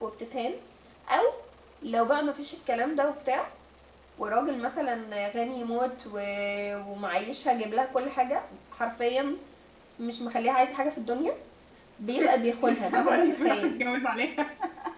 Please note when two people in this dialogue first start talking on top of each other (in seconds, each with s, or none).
12.3 s